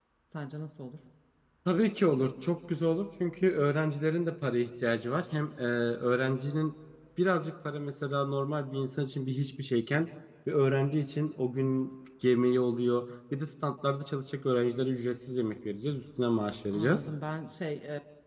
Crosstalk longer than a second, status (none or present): none